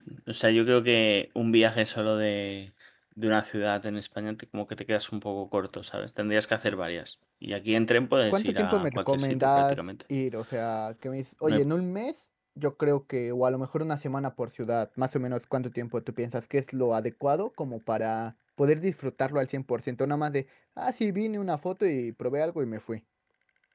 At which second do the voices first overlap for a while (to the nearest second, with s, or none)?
8 s